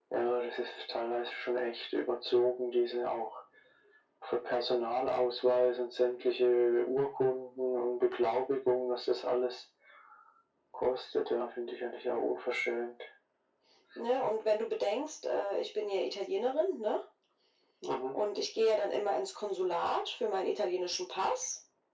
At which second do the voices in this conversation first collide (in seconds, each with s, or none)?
none